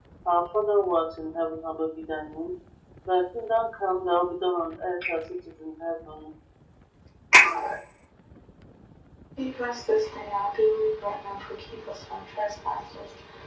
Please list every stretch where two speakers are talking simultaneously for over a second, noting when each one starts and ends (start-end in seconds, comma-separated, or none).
none